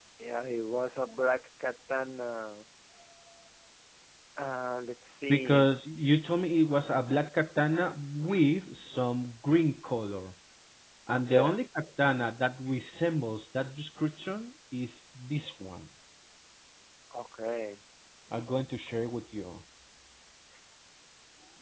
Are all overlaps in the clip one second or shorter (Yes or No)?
Yes